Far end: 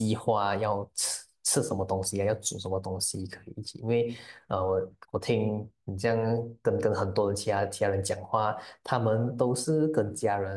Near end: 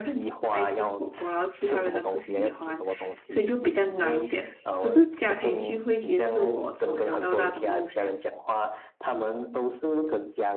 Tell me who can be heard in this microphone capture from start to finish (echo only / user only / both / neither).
both